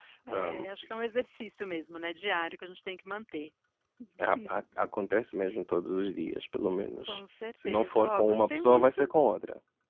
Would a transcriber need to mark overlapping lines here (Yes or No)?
Yes